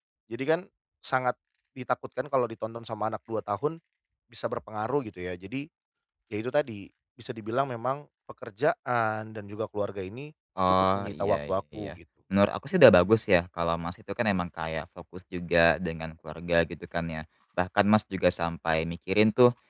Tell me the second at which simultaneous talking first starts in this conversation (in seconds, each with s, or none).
10.6 s